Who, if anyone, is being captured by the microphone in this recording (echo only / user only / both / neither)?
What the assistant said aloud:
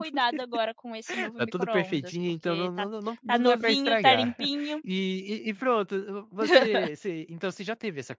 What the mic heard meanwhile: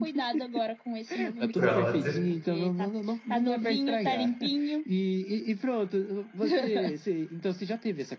both